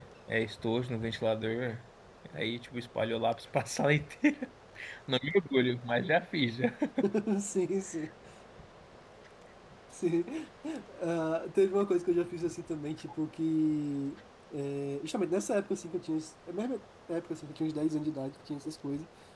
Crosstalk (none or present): none